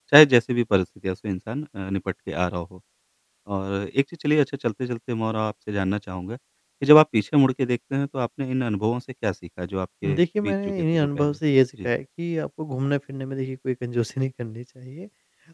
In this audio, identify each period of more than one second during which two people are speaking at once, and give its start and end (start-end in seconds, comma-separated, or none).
10.1-11.4